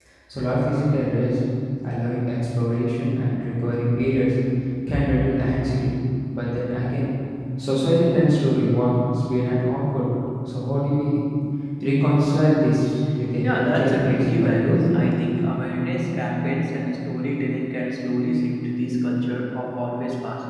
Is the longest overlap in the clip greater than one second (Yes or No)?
Yes